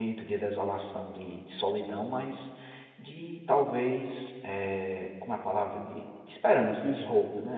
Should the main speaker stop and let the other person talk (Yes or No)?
Yes